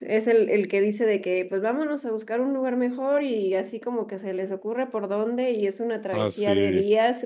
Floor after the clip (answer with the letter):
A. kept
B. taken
A